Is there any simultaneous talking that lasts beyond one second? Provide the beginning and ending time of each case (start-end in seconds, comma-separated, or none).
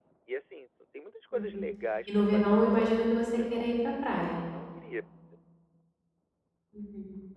2.1-3.7